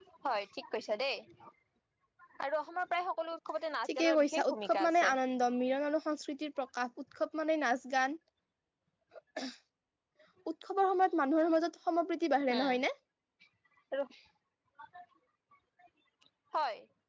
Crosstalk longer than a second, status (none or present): present